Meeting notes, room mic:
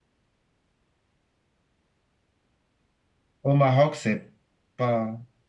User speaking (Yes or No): Yes